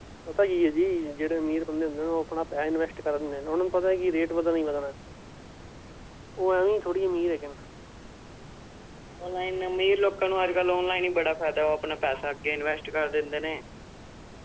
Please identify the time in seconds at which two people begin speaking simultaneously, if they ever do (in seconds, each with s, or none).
none